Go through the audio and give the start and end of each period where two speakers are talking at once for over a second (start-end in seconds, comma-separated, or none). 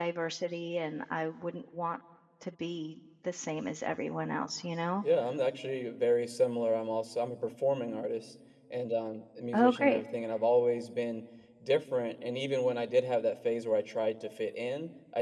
none